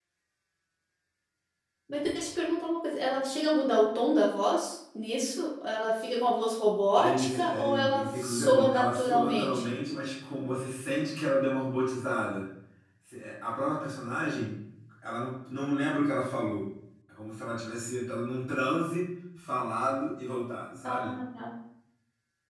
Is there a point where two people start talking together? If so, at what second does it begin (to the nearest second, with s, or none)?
7 s